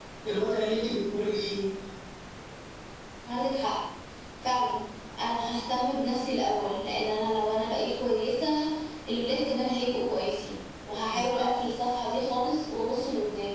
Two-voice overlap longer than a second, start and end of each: none

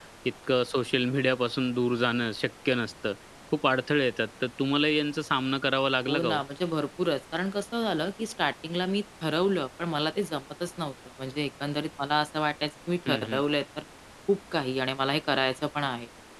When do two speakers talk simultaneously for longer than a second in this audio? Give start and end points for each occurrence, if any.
none

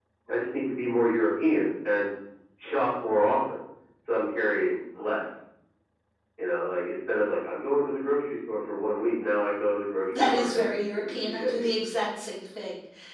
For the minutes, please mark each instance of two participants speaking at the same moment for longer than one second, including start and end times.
10.1-11.7

